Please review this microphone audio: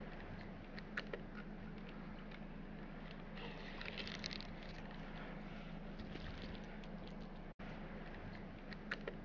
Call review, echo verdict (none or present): none